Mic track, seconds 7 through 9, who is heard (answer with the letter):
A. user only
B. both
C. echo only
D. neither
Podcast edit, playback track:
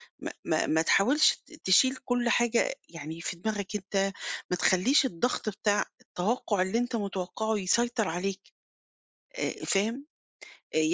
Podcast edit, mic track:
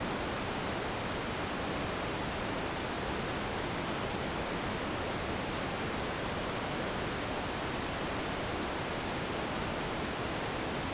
D